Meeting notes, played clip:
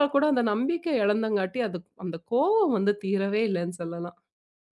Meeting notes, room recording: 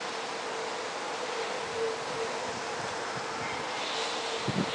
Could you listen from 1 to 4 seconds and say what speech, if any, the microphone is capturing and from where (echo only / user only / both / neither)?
neither